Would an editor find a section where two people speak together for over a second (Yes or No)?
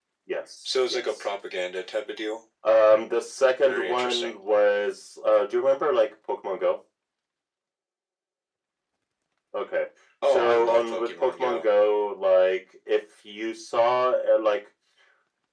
Yes